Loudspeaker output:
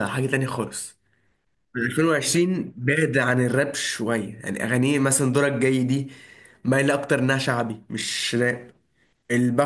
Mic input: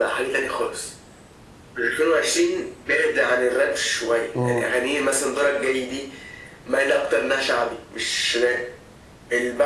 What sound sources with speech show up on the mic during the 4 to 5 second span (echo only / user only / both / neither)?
both